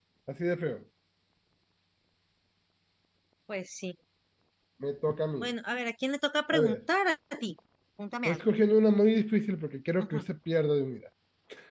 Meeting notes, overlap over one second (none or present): none